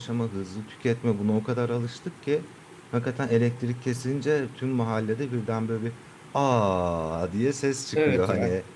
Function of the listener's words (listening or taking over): taking over